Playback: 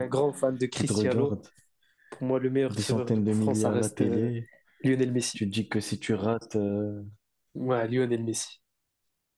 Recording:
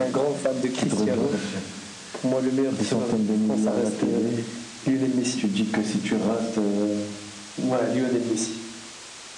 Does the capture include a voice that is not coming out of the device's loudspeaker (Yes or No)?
Yes